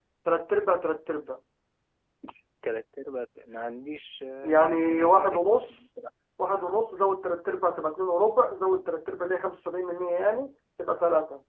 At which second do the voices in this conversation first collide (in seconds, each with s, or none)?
4.4 s